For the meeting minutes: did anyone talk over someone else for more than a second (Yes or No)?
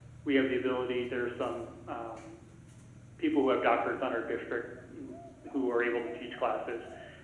No